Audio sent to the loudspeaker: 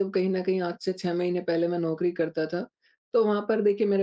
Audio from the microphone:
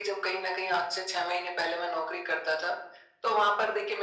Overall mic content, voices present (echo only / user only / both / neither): echo only